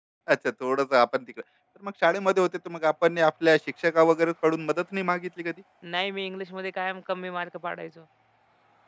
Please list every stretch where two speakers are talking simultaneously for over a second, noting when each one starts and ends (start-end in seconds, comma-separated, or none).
none